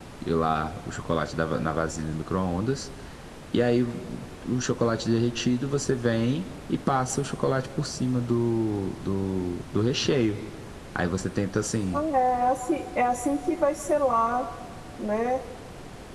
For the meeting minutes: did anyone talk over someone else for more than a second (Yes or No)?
No